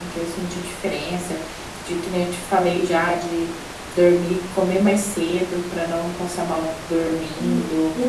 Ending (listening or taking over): taking over